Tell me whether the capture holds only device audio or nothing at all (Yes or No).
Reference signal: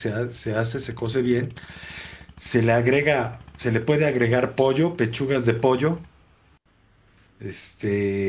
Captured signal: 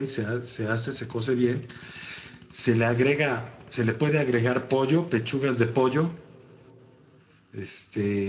Yes